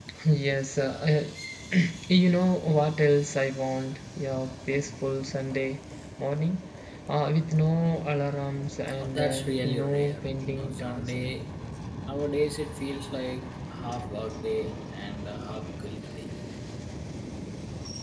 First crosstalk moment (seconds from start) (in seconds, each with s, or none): 9.0 s